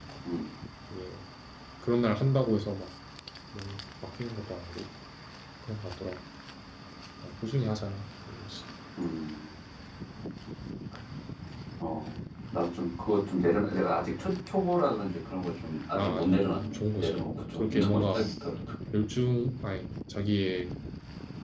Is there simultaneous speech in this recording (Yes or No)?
Yes